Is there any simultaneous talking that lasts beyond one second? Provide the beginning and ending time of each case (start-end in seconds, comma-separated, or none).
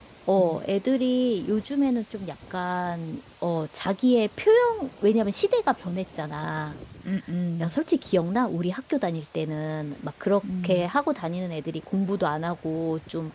none